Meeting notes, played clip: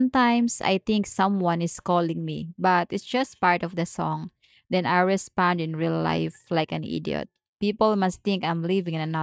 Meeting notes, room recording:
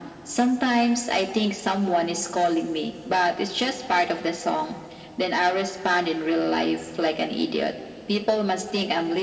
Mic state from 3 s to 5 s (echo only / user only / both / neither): echo only